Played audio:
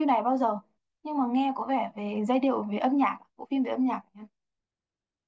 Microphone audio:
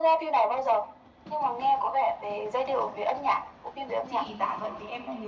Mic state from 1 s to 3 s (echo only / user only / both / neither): echo only